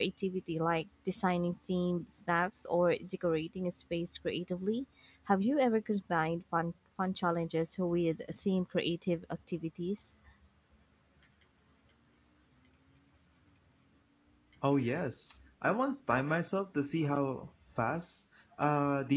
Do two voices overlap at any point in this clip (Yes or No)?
No